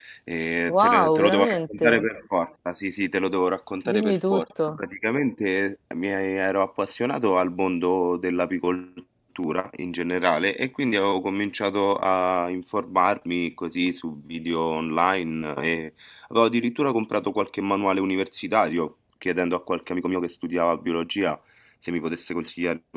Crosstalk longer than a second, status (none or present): present